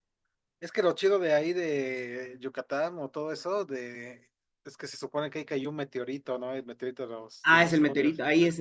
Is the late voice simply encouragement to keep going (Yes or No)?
No